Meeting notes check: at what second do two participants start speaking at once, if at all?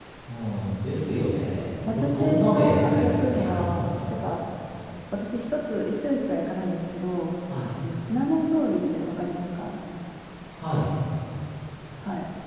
2 s

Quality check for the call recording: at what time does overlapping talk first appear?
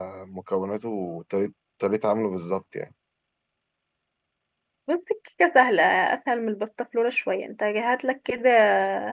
none

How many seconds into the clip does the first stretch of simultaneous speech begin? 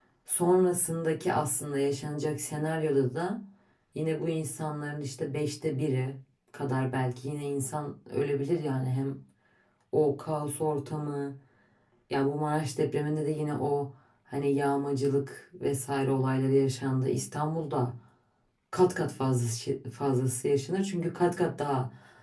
none

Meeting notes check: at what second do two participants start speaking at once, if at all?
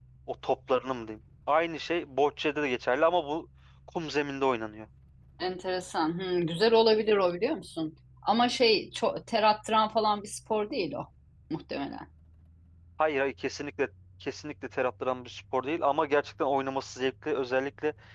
none

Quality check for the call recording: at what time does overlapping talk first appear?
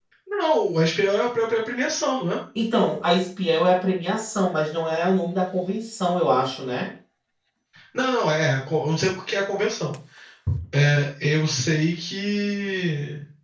none

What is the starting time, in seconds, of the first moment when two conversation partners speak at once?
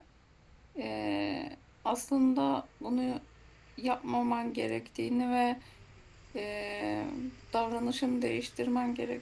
none

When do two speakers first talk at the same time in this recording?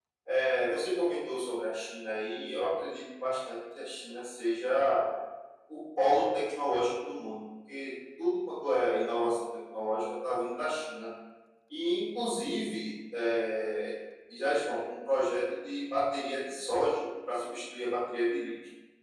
none

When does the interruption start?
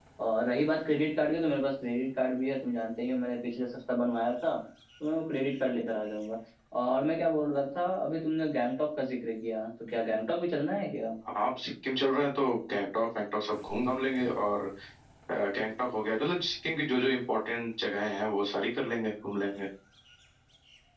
none

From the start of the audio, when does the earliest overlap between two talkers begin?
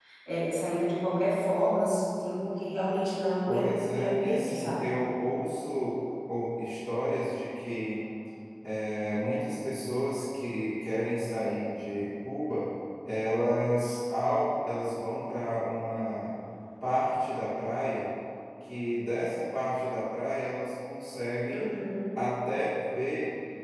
3 s

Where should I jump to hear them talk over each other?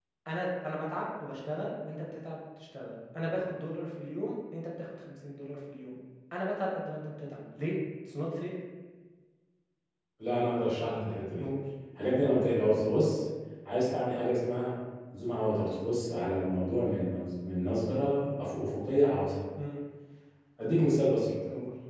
none

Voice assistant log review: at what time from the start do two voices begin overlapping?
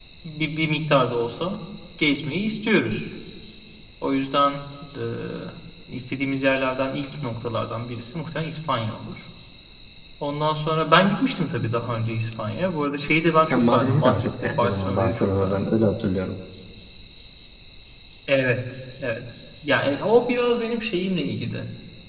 14 s

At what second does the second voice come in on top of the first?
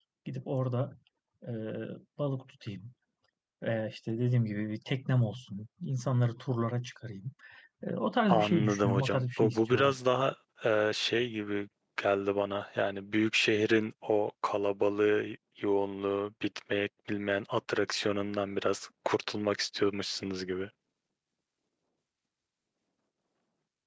8 s

